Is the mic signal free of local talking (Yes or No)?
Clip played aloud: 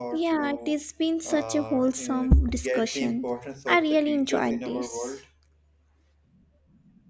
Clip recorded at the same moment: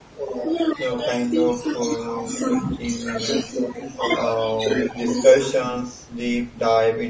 No